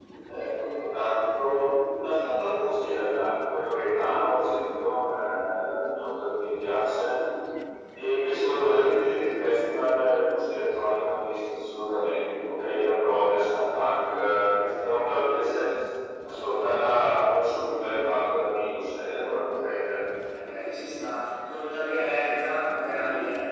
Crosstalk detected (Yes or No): No